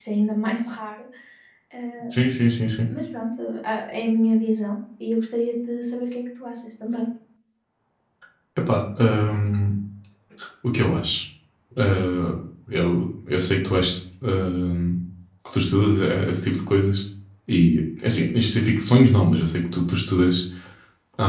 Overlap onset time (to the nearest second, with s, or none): none